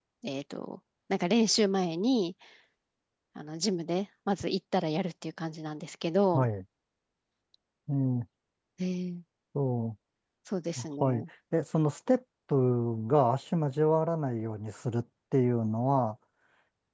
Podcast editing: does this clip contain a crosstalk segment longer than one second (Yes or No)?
No